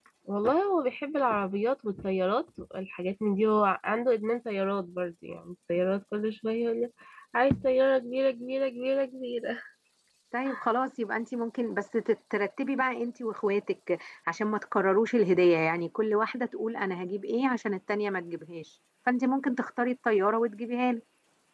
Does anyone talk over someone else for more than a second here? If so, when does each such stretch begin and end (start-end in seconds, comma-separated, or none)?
none